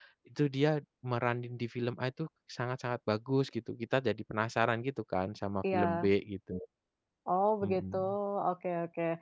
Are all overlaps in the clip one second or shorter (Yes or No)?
Yes